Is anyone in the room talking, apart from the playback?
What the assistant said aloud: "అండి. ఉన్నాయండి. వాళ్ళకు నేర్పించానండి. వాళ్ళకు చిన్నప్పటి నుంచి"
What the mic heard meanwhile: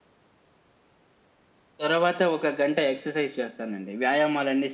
Yes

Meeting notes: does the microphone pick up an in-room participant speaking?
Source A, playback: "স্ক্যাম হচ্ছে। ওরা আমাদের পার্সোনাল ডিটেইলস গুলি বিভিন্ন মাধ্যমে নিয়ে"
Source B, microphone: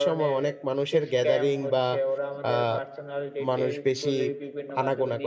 Yes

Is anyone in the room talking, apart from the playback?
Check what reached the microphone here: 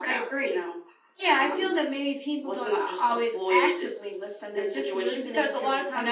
No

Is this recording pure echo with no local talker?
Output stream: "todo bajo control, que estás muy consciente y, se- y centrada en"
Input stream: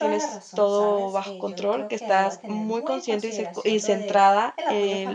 No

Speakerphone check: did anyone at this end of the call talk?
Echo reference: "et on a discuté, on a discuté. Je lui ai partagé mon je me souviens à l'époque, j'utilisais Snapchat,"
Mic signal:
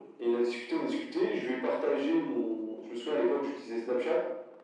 No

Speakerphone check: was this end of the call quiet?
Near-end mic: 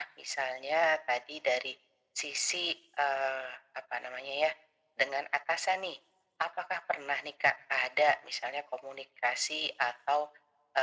Yes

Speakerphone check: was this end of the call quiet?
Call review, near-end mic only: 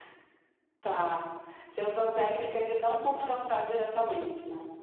Yes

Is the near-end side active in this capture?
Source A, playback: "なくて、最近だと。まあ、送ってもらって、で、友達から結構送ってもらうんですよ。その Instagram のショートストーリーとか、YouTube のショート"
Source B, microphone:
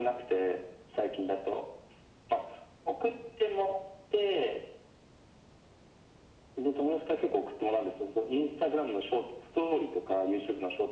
No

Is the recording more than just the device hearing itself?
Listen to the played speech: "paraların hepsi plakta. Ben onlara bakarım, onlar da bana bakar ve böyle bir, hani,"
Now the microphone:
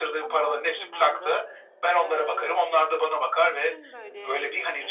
Yes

